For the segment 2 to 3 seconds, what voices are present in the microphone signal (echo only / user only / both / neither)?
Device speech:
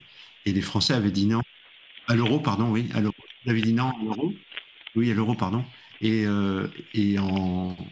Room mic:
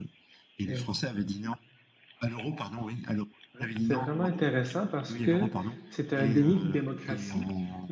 echo only